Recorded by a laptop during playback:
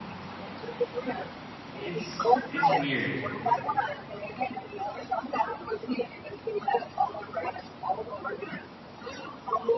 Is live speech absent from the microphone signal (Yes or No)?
No